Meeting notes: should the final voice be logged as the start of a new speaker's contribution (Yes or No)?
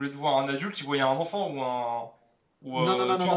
Yes